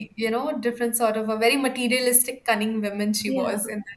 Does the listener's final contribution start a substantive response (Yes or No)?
Yes